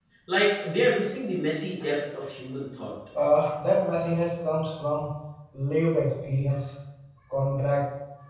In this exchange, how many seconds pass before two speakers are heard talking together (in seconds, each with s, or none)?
none